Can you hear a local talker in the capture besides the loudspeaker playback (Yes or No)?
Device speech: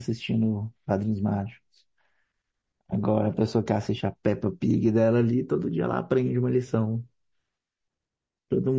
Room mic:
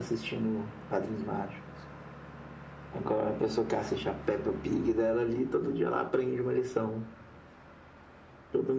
No